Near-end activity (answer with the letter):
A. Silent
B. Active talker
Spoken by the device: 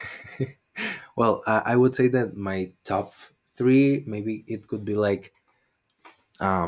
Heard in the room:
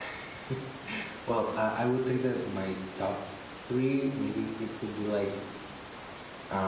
A